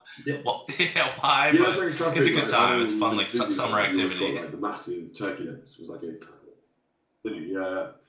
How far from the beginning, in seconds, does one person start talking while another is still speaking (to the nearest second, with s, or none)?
2 s